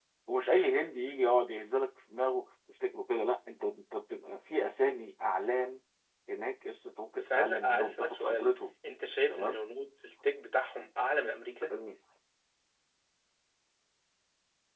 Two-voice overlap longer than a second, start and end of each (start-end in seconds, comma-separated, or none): 7.1-8.5